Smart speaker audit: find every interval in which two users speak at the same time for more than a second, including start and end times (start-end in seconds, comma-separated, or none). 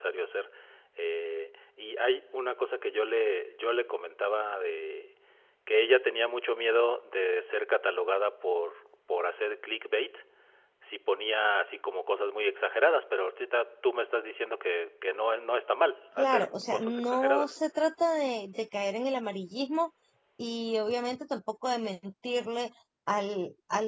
16.2-17.5